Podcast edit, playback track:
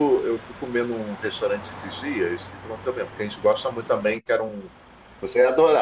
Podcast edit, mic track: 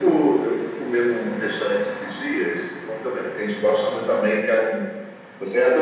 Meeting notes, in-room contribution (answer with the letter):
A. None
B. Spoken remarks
A